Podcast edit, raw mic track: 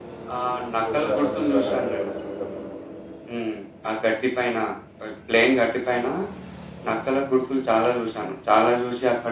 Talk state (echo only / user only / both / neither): both